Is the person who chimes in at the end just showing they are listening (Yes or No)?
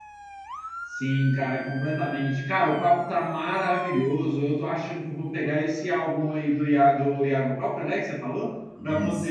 Yes